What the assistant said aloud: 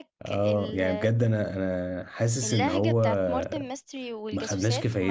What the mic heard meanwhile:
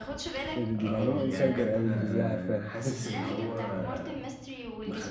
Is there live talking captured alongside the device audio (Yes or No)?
Yes